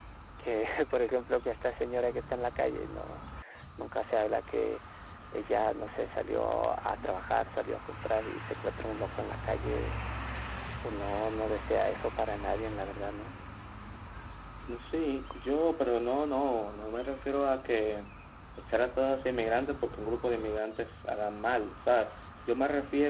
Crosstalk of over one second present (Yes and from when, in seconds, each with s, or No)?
No